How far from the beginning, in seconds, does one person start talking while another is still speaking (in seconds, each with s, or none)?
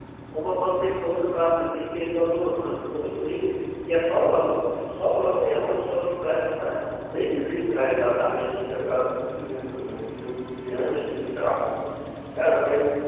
none